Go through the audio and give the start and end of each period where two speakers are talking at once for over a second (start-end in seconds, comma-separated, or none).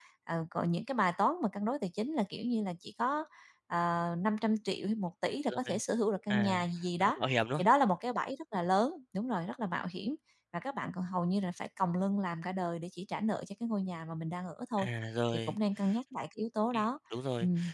none